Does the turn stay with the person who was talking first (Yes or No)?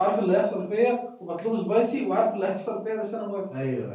No